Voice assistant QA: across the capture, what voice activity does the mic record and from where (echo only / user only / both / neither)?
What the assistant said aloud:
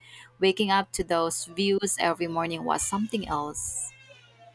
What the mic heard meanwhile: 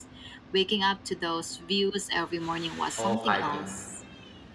both